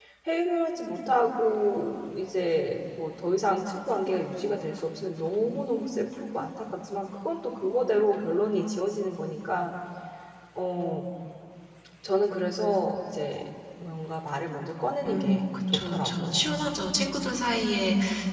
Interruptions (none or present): present